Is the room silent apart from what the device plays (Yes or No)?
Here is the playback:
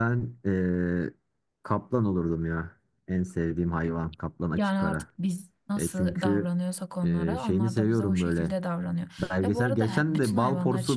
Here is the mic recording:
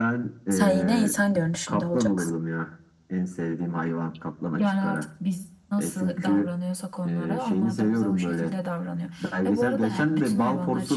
No